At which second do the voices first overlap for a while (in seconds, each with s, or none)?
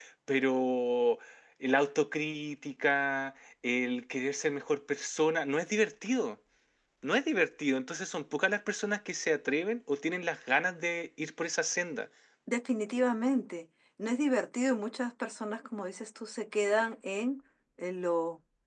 none